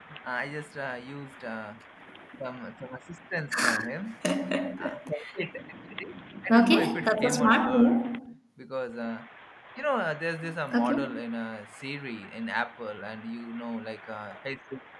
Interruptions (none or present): present